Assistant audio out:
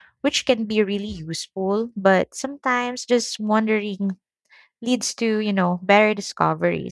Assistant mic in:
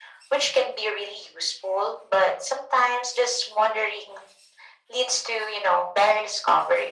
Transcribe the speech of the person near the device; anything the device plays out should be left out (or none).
none